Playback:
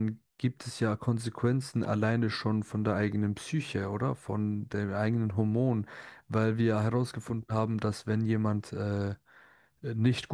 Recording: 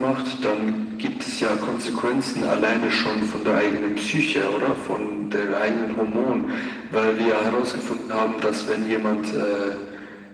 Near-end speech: none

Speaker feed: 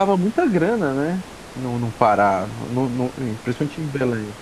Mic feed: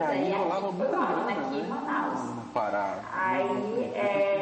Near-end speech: present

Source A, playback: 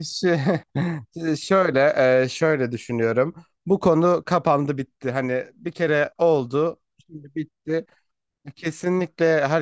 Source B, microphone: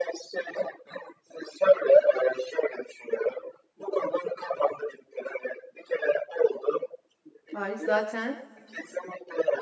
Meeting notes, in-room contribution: present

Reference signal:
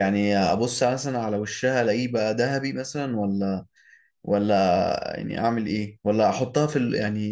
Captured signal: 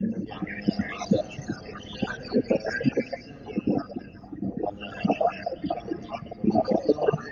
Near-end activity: none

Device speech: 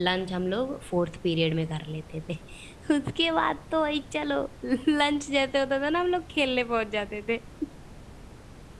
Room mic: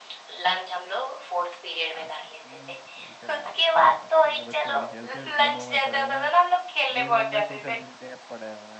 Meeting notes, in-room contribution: present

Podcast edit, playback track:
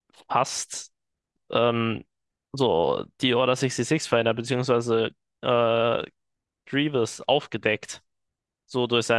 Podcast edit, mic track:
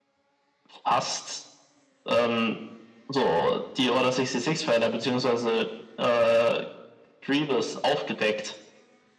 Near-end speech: none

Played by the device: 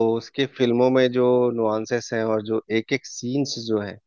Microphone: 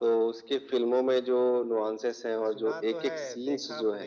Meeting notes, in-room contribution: present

